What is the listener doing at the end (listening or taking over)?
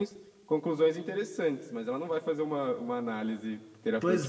taking over